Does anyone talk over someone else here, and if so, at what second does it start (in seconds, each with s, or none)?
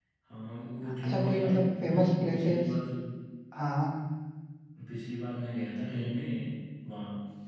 1.0 s